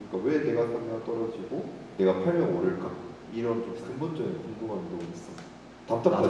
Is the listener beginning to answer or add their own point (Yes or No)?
Yes